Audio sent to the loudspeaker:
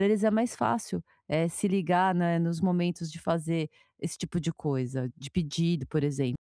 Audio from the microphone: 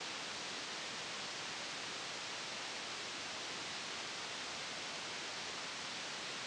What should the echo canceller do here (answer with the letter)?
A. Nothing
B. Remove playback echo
A